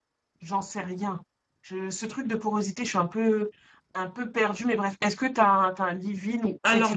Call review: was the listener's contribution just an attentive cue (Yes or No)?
No